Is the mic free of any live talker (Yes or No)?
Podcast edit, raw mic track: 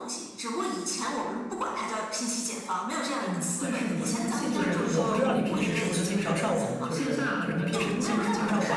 No